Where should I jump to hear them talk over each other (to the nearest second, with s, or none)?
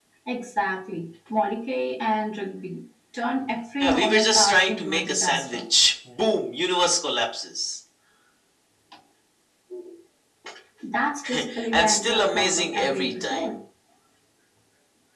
4 s